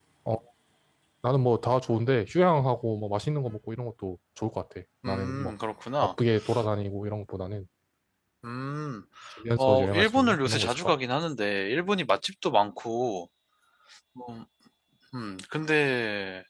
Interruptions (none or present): present